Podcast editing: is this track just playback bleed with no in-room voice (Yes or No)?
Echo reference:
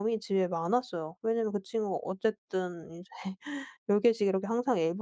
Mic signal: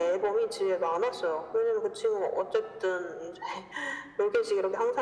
Yes